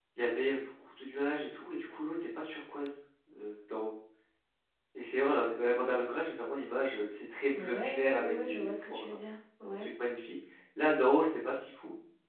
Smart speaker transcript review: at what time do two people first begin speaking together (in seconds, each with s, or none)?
7.5 s